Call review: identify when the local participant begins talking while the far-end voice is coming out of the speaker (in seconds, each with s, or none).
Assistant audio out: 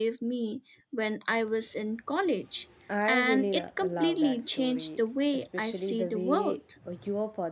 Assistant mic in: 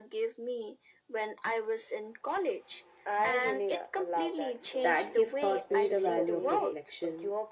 4.8 s